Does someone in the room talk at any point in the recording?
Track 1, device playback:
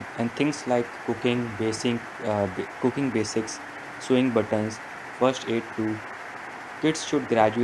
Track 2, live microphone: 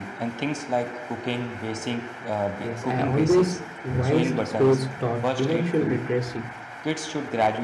Yes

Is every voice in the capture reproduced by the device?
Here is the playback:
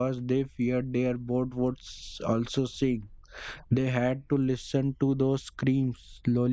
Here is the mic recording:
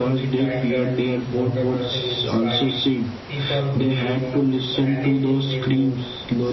No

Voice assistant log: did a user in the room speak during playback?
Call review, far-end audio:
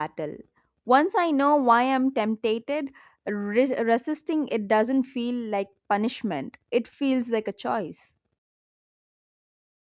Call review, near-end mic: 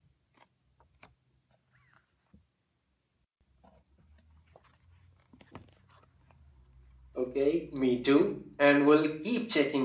Yes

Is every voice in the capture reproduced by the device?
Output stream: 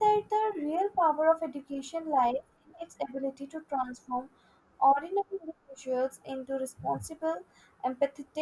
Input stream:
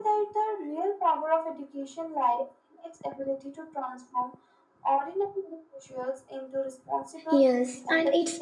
No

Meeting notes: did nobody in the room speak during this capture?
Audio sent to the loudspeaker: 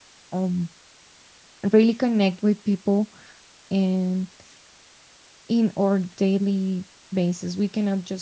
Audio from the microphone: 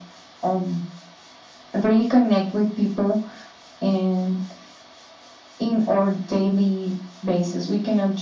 Yes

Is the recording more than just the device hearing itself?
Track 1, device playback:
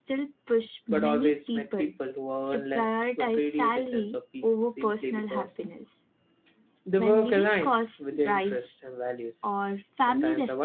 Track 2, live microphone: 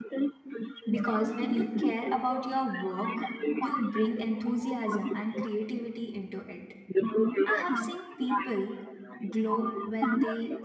Yes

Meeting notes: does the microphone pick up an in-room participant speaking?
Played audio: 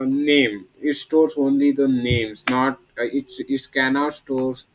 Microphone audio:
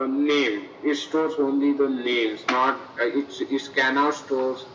No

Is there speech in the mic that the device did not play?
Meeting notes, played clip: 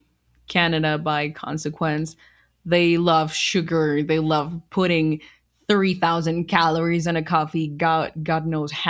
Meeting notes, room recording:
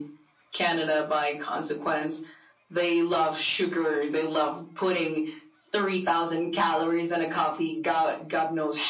No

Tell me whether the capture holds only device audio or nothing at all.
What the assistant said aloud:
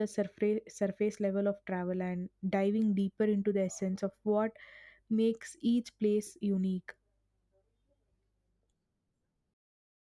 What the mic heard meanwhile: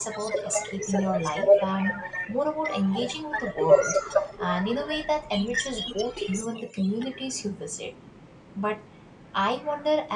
No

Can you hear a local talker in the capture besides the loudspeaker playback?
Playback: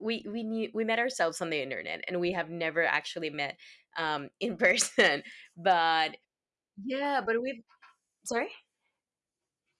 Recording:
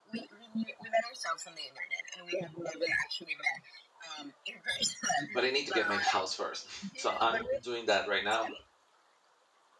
Yes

